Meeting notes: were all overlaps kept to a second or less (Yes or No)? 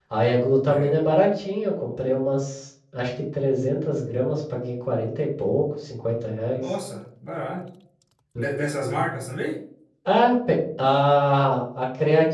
Yes